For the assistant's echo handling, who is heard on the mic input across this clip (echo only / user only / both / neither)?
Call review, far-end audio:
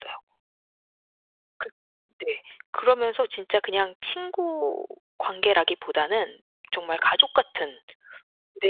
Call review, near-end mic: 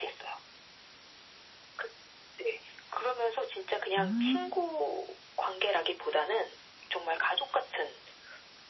both